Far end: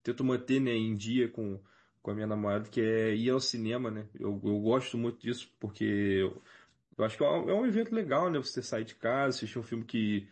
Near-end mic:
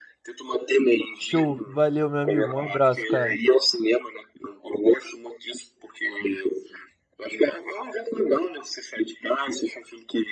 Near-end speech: present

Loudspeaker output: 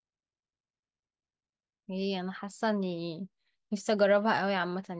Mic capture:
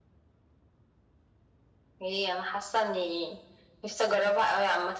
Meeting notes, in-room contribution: none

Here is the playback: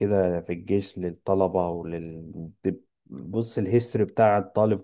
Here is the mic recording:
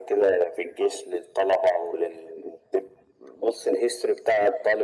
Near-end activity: none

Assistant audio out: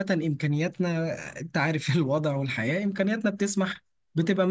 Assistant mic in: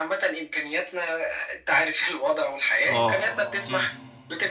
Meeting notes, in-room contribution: present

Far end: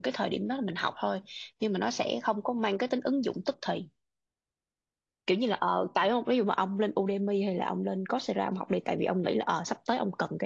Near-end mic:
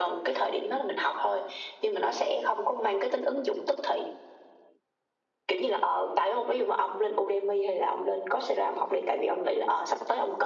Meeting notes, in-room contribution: none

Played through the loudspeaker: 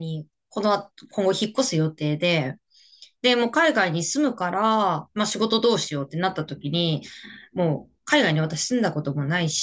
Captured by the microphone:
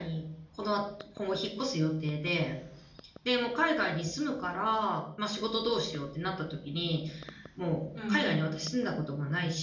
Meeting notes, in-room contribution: present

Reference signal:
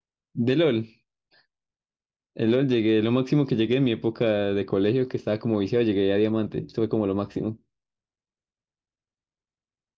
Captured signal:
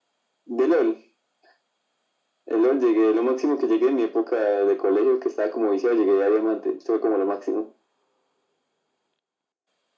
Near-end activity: none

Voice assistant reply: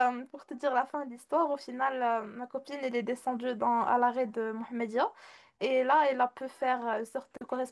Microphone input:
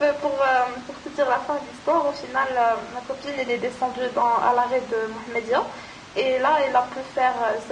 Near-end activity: none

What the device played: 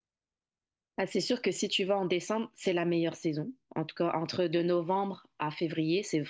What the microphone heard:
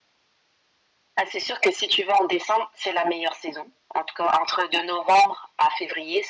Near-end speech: none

